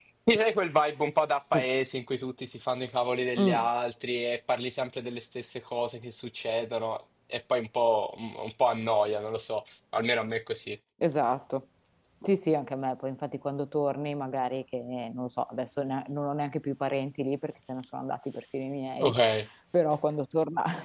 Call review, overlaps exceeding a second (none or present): none